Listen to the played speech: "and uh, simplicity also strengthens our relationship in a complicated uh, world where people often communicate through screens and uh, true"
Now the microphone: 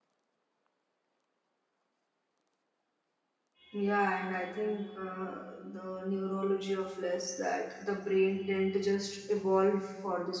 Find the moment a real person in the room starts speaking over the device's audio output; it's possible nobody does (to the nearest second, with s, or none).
4 s